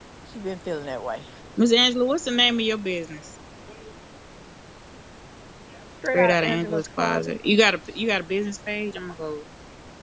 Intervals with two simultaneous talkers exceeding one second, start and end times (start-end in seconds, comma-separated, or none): 6.1-7.4